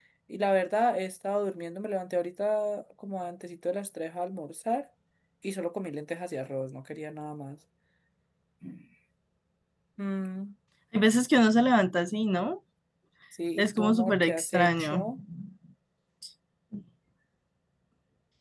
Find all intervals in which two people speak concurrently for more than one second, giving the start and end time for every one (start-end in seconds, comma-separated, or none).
13.6-15.1